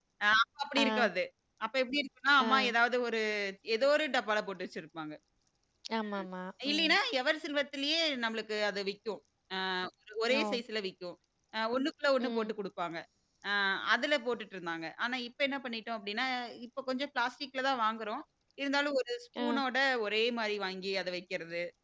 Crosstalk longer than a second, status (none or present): none